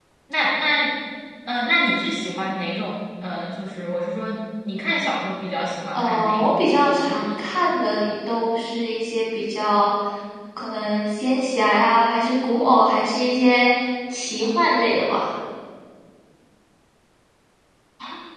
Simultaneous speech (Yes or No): Yes